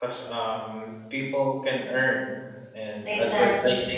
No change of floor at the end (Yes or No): Yes